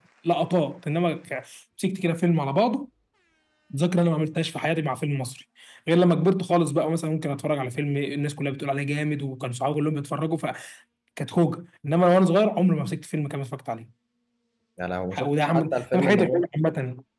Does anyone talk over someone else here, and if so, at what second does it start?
15.1 s

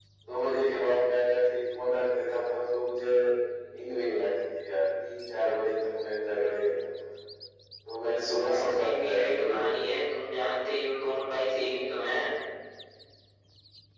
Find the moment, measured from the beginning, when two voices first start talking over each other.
8.5 s

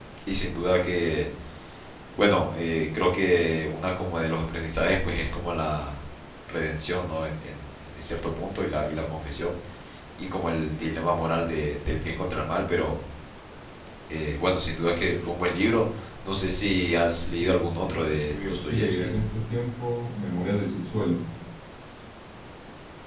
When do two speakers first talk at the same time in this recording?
17.4 s

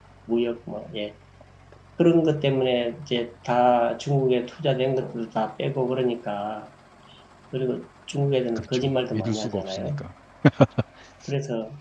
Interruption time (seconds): 8.6 s

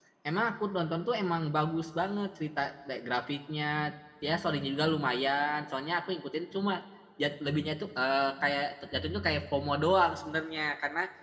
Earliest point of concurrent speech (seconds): none

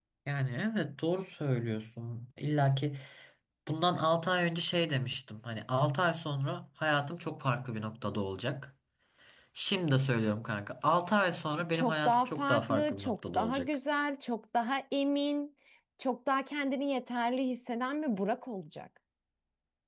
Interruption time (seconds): 11.7 s

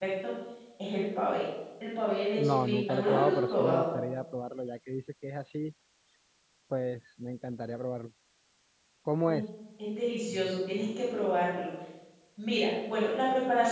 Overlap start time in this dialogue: 2.4 s

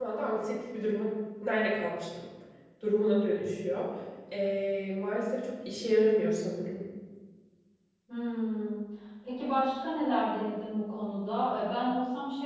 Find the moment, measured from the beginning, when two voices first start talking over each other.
none

